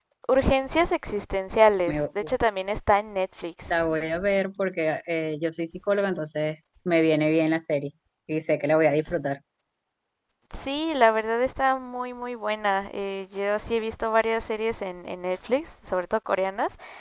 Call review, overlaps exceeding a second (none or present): none